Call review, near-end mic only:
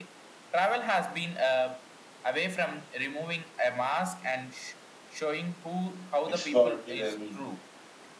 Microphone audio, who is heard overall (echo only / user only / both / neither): both